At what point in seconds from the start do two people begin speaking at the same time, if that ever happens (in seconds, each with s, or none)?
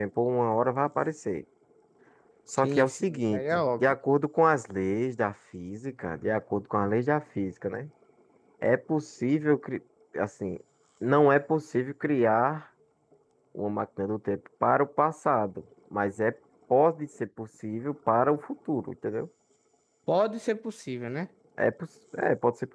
2.6 s